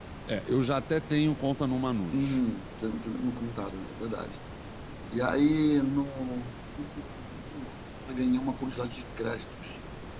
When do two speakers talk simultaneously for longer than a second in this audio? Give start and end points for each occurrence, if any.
none

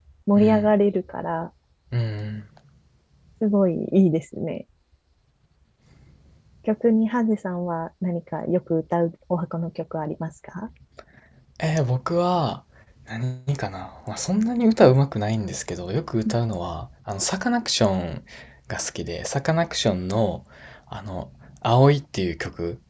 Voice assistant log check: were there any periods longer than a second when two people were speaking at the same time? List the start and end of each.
none

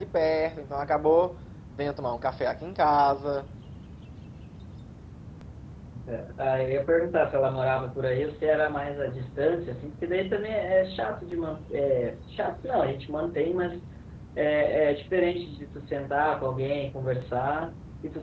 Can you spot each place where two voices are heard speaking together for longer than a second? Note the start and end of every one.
none

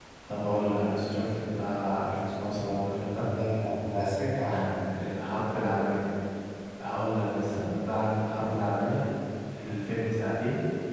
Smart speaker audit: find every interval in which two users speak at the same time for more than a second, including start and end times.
none

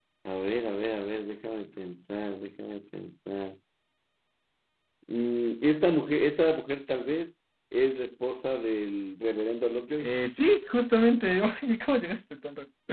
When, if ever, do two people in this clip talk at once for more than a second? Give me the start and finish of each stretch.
none

